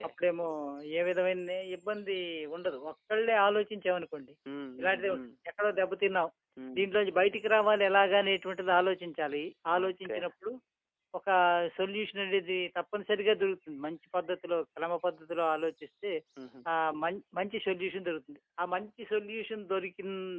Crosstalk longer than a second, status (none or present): none